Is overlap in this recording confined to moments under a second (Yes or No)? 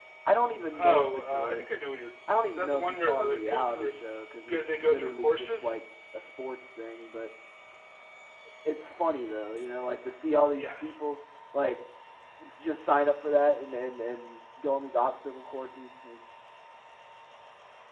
No